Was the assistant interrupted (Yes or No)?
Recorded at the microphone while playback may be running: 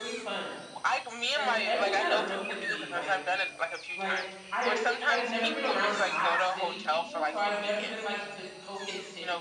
Yes